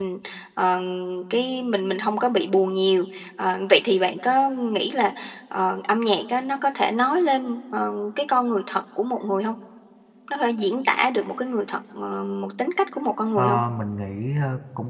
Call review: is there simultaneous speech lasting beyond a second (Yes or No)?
No